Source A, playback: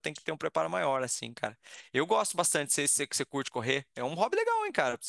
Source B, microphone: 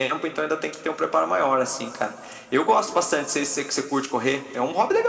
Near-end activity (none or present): none